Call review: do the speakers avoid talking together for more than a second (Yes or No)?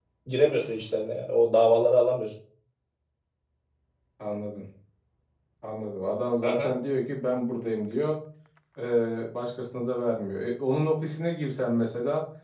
Yes